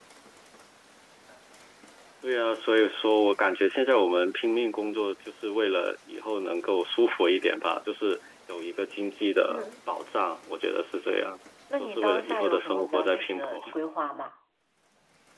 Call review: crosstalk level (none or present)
present